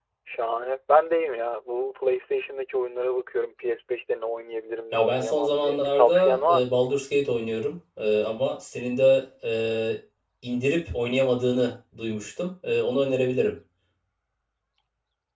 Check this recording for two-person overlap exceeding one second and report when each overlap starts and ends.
4.9-6.8

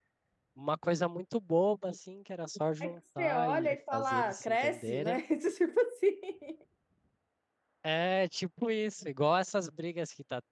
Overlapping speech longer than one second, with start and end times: 2.8-5.2

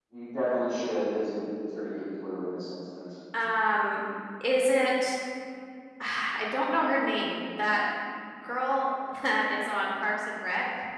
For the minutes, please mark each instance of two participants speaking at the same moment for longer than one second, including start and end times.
none

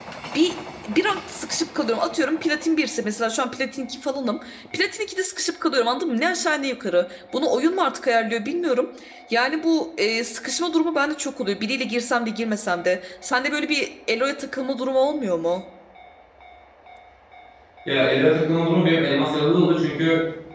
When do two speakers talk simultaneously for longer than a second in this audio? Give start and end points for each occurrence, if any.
none

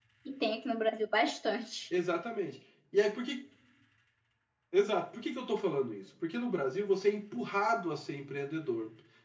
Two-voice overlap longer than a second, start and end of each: none

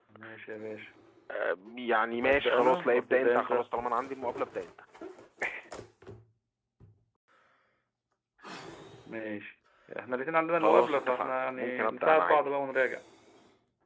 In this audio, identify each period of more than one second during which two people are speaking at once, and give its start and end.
2.2-3.7, 10.5-12.4

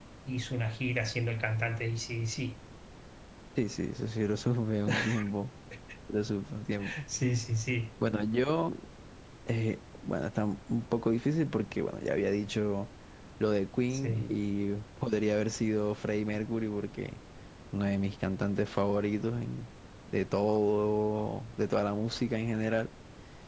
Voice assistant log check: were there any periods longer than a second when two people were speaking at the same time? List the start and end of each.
none

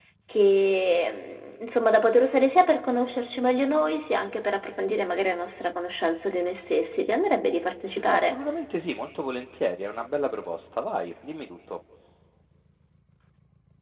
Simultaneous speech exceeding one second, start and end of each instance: none

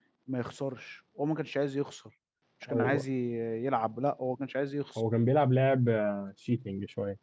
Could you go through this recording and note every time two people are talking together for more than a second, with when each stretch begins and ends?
none

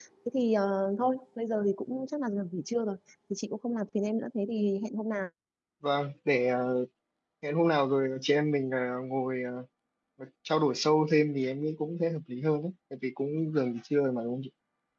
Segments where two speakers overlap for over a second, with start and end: none

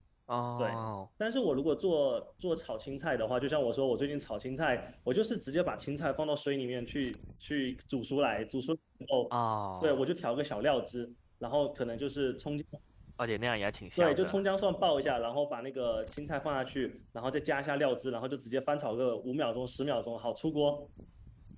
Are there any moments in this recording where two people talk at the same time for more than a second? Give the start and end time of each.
none

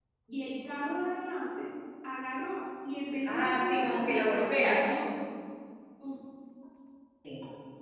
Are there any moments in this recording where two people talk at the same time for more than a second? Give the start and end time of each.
3.2-4.8

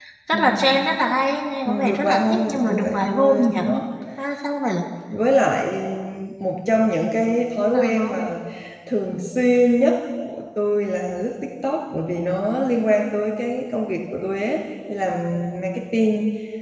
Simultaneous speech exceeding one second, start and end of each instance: 1.6-3.6

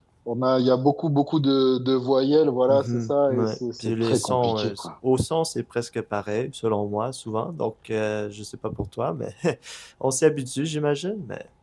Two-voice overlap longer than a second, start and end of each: 2.7-4.9

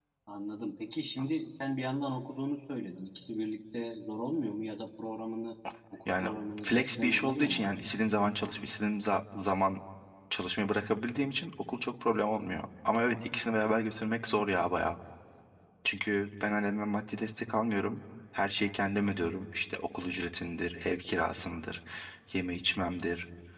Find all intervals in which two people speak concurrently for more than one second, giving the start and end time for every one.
6.6-7.9

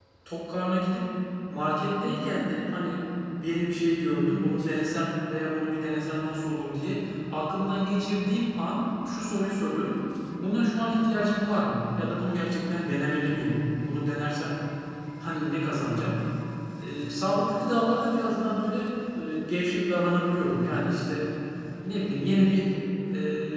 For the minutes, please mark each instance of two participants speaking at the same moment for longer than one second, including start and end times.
none

